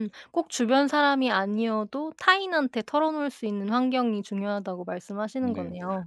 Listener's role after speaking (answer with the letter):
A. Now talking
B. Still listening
A